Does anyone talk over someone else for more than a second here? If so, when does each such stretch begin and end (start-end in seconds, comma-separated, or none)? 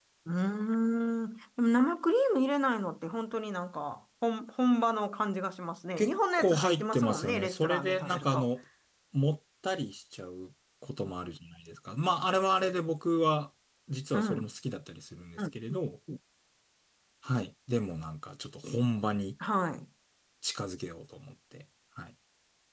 6.0-8.5